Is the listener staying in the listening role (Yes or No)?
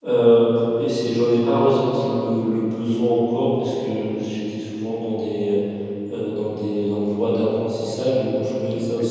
Yes